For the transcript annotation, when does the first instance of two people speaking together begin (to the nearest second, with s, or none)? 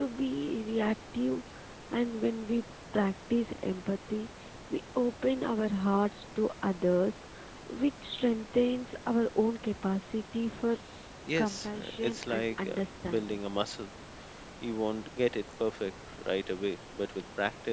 11 s